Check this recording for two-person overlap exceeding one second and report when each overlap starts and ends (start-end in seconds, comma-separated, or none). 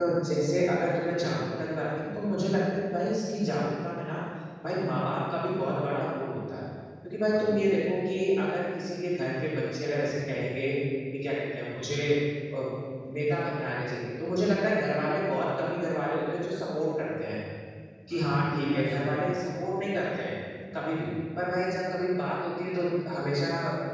18.1-19.4